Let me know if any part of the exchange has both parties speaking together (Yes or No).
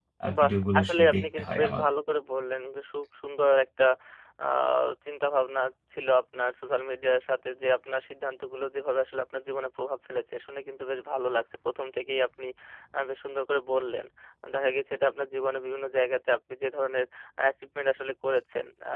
Yes